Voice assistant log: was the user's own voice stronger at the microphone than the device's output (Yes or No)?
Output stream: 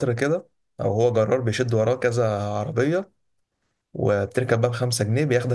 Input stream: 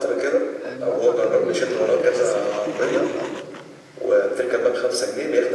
No